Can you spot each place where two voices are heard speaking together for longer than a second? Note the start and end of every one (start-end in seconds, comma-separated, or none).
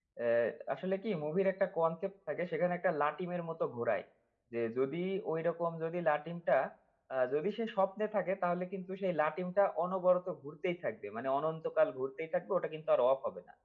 none